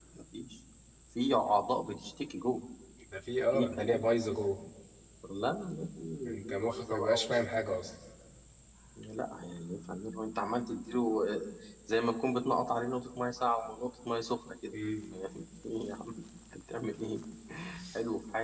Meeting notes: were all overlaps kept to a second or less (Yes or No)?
No